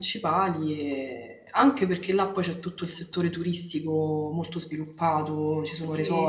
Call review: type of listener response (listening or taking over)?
taking over